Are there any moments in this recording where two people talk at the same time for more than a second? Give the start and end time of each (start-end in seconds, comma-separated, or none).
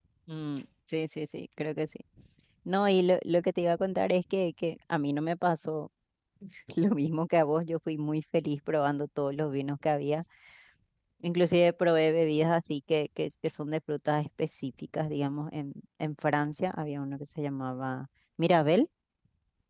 none